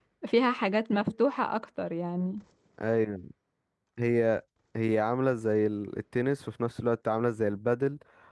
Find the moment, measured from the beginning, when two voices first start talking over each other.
none

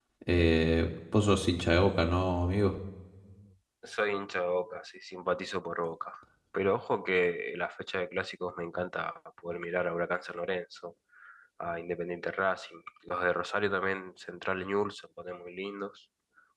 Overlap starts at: none

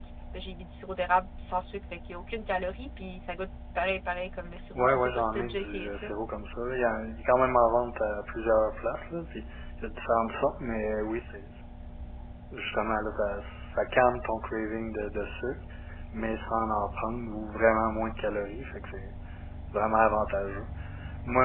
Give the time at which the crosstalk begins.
4.8 s

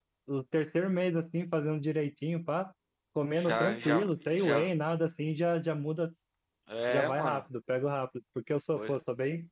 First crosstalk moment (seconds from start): 3.4 s

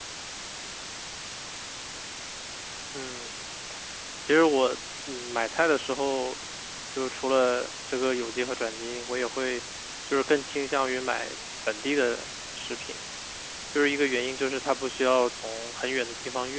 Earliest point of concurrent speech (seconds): none

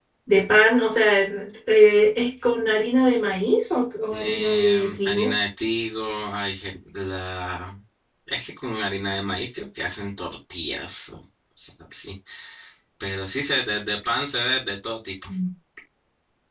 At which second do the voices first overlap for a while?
4.1 s

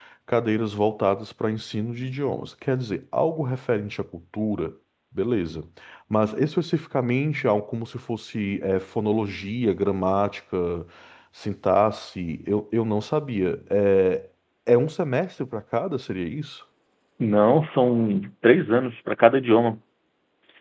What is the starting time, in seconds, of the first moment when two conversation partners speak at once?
none

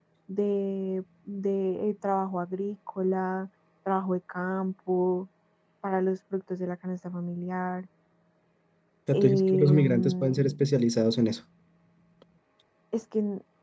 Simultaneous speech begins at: 9.1 s

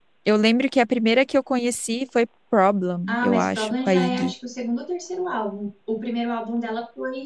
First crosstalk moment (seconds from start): 3.1 s

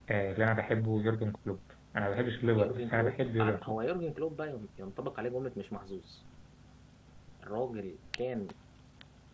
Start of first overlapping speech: 2.6 s

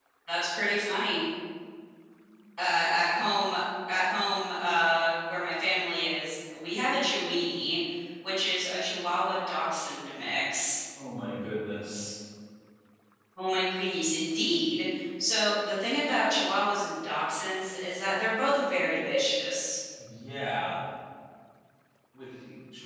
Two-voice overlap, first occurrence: none

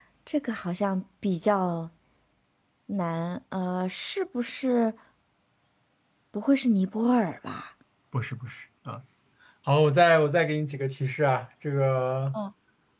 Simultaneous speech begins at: none

